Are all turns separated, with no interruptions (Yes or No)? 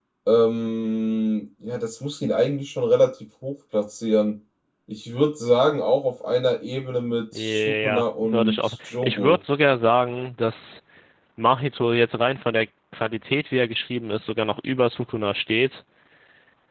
No